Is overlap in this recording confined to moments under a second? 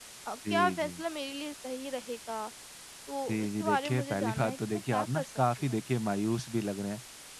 No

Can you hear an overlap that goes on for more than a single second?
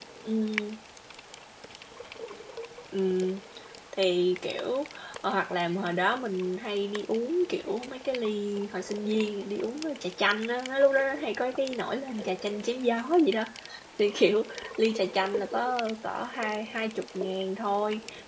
No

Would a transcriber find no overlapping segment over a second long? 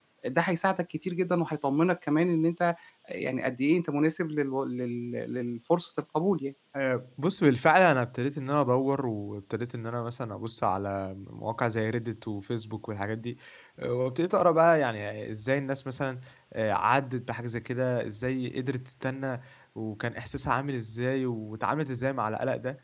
Yes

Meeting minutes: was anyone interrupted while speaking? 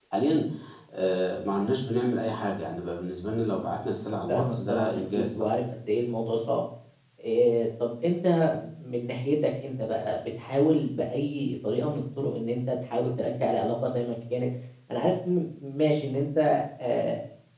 Yes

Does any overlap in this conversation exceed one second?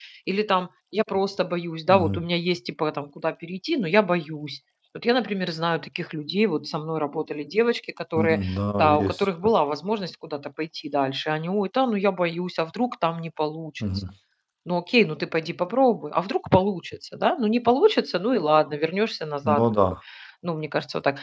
No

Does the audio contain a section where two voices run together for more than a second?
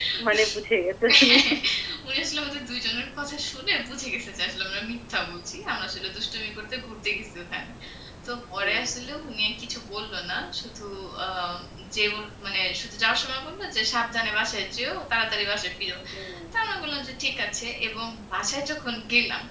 No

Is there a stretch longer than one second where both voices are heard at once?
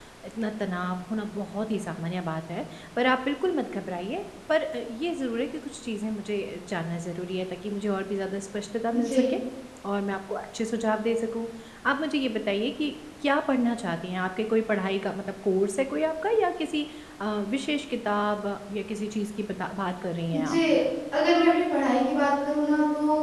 No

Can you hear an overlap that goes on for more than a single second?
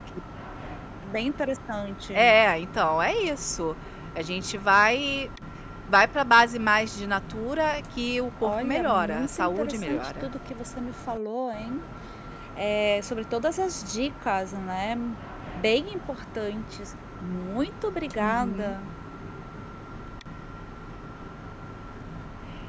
Yes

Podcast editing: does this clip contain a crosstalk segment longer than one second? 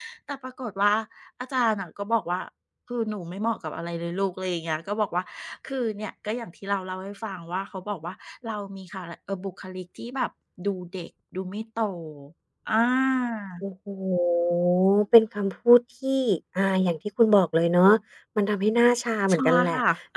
No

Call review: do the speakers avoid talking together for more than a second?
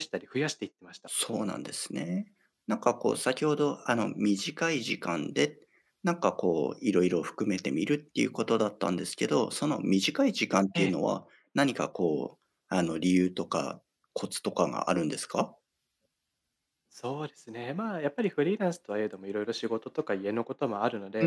Yes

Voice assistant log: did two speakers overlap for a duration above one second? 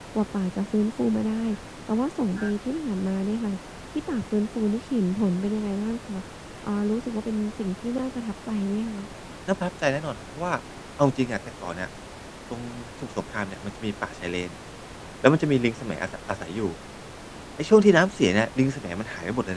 No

